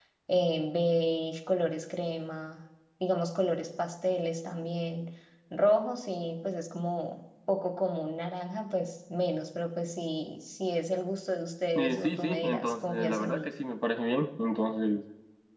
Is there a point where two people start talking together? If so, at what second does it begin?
12 s

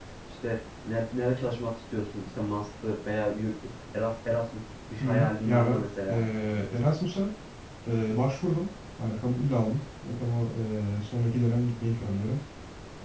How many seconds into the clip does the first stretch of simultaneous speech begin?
5 s

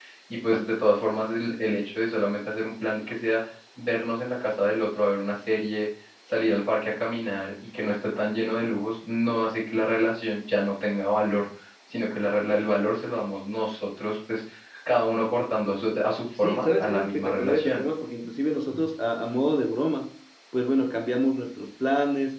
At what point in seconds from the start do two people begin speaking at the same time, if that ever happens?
16 s

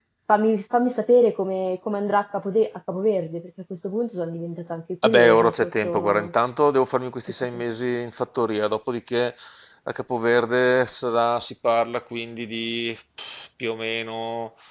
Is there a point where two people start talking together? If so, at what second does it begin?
5 s

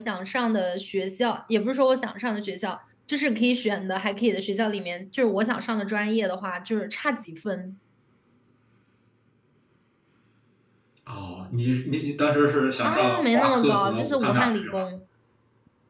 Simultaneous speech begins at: 13 s

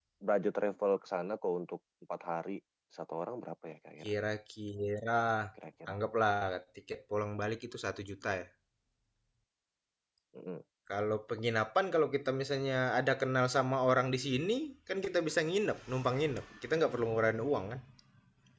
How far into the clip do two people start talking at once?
none

